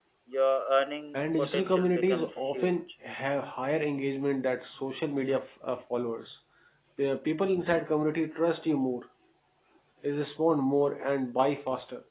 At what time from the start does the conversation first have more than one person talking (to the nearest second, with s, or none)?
1 s